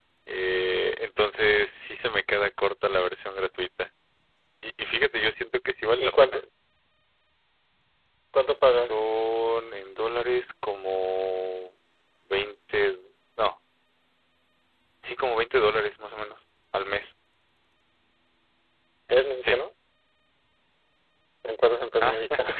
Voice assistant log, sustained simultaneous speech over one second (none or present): none